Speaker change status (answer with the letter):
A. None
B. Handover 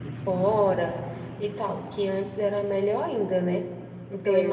B